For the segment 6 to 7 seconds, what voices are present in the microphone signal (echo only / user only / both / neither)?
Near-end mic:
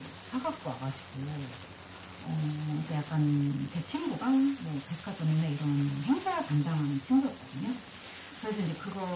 echo only